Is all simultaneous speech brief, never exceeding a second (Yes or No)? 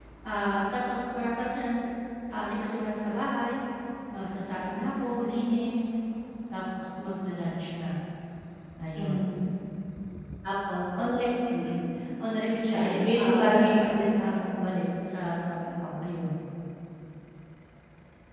No